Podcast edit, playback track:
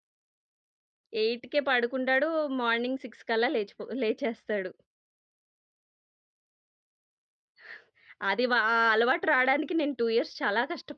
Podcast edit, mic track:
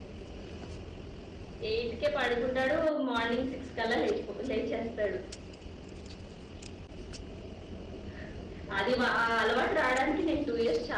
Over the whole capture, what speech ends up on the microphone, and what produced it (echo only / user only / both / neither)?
echo only